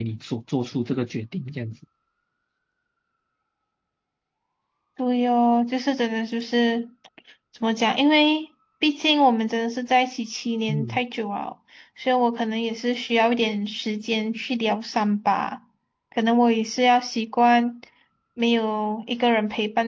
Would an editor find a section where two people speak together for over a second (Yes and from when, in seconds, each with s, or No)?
No